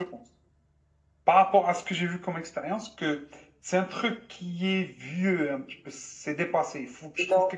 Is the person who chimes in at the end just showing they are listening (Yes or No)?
Yes